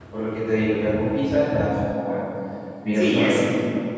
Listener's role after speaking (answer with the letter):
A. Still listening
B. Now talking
B